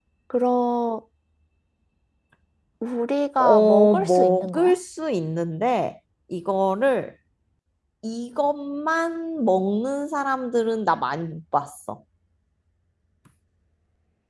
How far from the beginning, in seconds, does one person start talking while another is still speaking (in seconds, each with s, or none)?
3.4 s